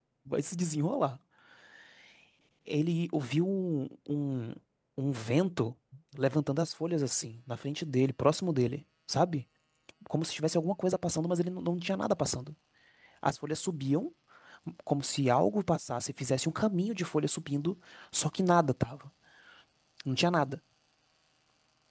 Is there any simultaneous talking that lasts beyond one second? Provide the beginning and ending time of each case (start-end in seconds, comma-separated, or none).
none